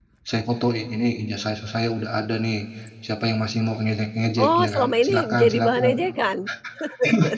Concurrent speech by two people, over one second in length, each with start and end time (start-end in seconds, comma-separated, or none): 4.5-6.0